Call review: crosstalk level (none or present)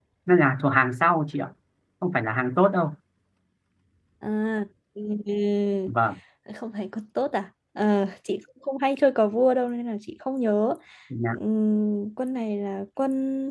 none